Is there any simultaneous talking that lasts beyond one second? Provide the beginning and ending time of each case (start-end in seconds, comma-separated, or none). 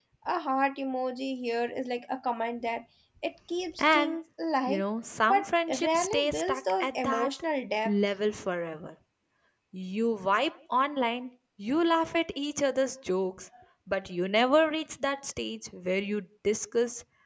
5.8-7.3